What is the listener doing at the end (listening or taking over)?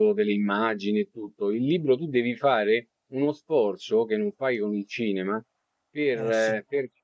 listening